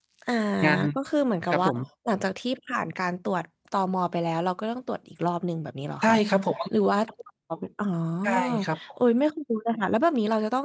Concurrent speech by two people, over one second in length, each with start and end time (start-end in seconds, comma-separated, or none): none